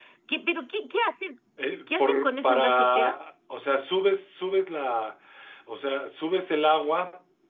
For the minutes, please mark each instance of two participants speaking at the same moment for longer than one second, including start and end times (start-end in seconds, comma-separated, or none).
1.9-3.2